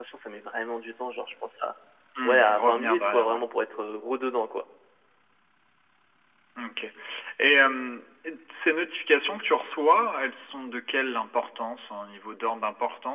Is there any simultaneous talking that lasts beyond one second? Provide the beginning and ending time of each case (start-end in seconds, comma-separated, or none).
2.2-3.5